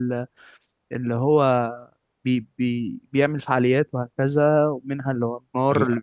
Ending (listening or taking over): listening